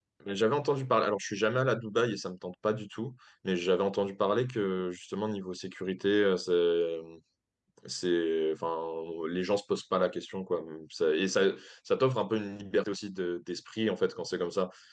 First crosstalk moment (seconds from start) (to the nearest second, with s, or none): none